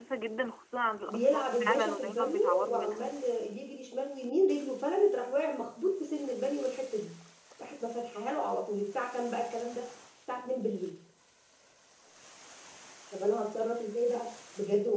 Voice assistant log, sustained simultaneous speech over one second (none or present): present